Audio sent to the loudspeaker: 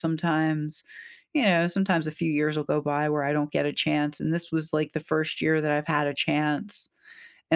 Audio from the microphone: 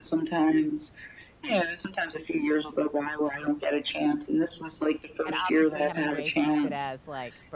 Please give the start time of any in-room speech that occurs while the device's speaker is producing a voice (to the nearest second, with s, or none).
5 s